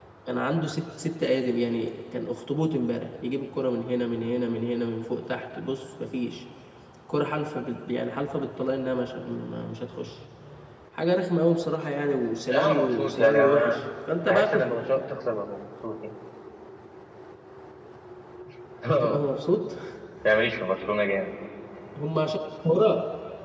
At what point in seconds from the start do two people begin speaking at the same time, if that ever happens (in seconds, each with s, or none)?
12.5 s